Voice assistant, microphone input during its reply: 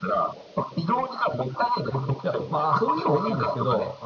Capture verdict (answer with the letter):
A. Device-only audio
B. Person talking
B